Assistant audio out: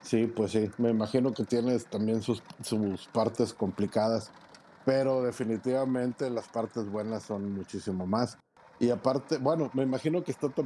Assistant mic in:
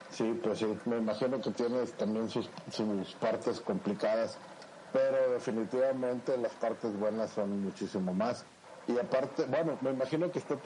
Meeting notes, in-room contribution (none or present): none